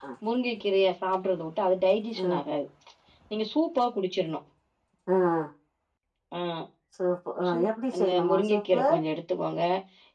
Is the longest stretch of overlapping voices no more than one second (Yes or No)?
No